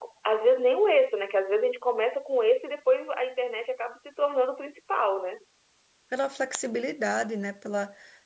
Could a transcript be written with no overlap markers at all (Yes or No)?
Yes